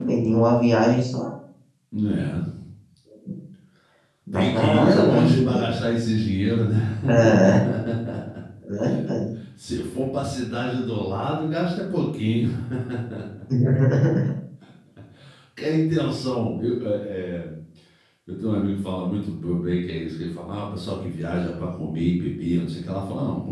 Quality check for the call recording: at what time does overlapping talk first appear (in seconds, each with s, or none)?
4.3 s